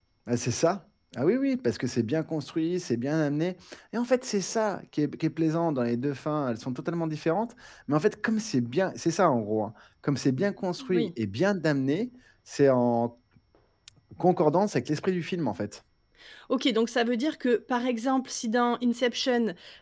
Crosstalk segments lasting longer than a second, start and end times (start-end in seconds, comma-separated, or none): none